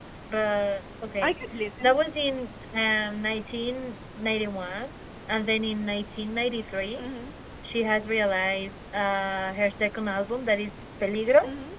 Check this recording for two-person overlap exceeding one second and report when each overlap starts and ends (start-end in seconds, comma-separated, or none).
none